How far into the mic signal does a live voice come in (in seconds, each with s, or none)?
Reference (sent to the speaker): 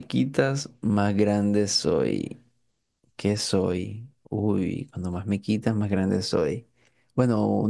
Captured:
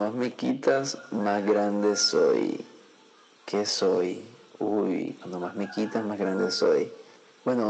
none